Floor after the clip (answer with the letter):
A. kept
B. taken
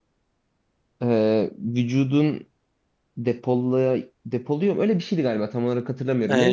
B